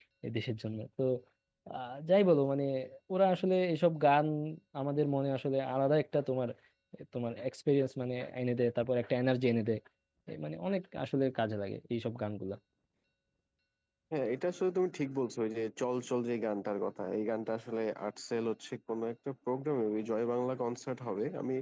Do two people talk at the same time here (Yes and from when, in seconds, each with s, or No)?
No